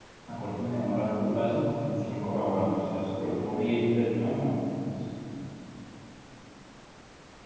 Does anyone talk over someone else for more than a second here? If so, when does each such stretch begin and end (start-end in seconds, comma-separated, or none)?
none